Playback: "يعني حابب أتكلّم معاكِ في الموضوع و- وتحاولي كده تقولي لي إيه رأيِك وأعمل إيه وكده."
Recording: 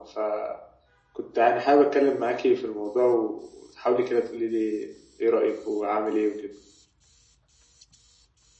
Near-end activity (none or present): none